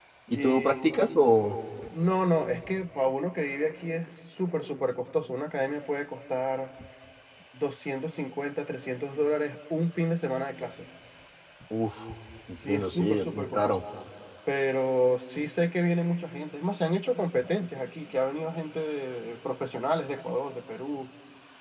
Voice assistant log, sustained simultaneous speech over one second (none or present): present